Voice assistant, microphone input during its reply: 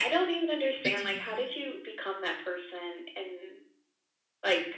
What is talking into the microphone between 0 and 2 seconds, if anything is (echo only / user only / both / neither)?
both